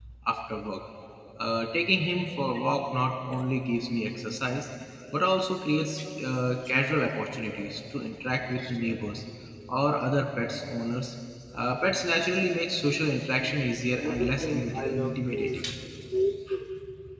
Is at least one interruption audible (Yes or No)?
Yes